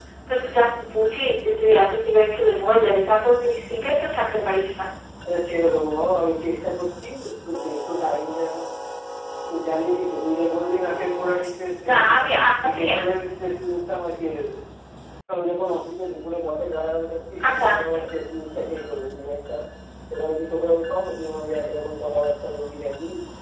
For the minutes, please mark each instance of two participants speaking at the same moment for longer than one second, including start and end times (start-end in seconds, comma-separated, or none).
none